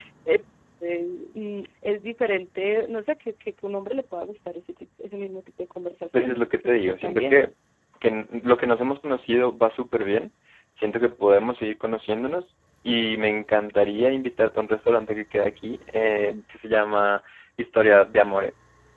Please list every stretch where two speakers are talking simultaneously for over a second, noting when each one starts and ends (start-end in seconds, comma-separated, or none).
6.1-7.4